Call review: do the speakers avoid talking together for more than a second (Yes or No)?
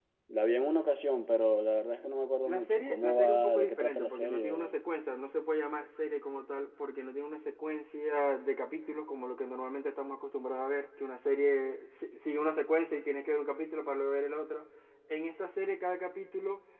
No